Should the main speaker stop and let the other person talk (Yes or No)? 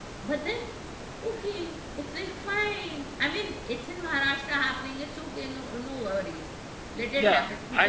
Yes